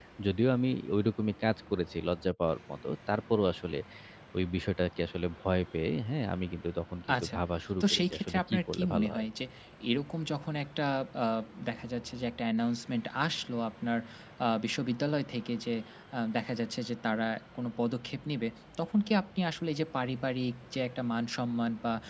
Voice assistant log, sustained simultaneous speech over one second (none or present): present